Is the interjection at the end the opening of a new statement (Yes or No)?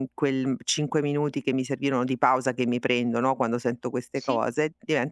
No